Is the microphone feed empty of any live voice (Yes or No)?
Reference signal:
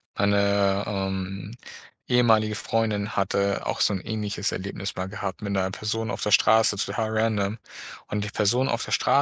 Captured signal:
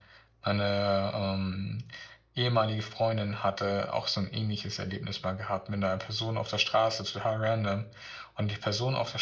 Yes